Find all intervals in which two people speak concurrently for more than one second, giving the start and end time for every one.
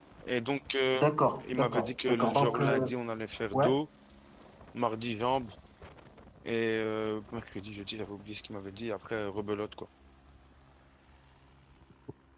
1.5-2.9

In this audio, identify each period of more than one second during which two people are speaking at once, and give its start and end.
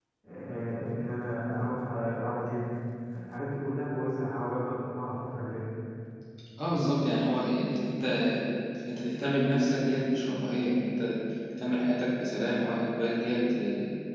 none

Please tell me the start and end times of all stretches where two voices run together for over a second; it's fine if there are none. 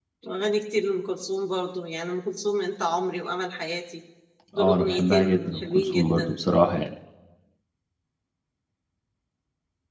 4.6-6.4

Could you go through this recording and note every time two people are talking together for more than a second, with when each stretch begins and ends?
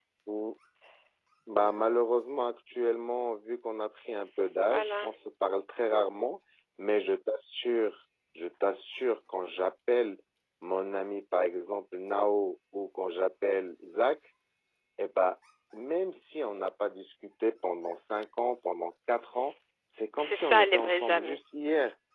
20.2-21.4

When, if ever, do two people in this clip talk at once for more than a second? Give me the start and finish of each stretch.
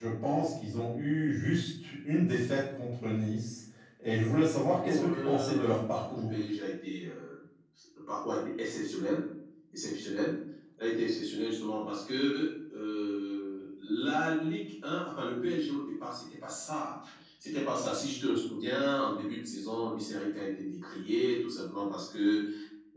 4.8-6.3

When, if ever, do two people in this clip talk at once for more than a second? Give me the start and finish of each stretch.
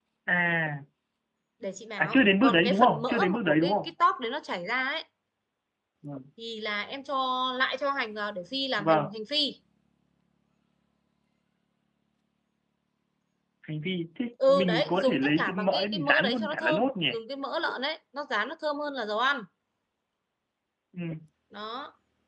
2.0-3.9, 14.5-16.9

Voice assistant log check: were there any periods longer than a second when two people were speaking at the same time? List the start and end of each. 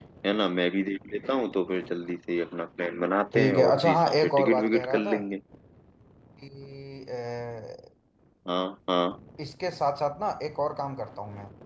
3.3-5.2

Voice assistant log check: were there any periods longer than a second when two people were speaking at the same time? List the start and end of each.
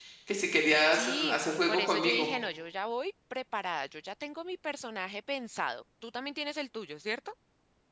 0.9-2.3

